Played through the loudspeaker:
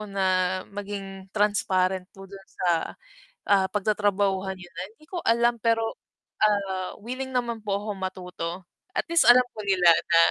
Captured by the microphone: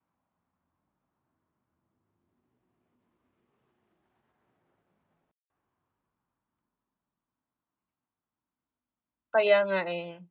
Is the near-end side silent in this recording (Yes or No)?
No